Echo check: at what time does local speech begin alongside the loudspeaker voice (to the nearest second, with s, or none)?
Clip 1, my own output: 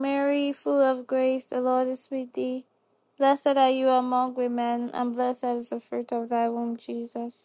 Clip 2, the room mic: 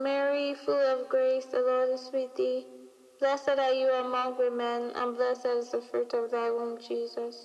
none